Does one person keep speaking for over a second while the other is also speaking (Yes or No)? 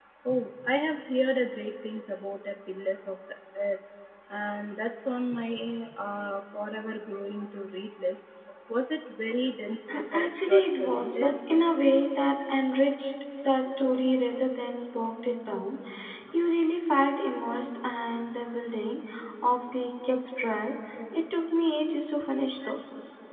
Yes